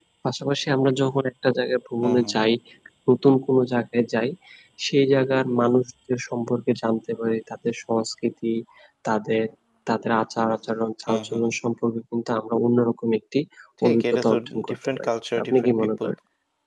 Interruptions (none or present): present